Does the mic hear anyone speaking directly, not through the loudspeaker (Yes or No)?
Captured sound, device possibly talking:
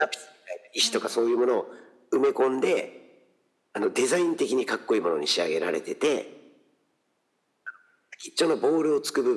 Yes